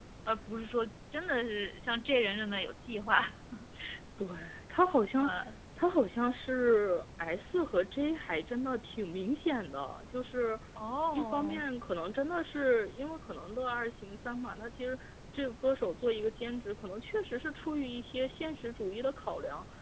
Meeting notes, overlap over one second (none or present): none